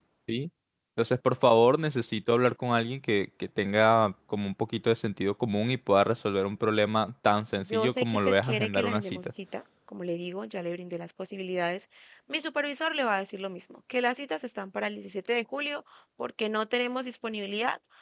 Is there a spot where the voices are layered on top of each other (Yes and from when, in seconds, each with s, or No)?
Yes, from 7.6 s